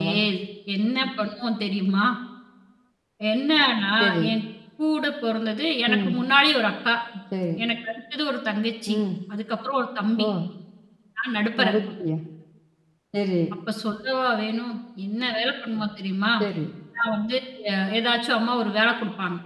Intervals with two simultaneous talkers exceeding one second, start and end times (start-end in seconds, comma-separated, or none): none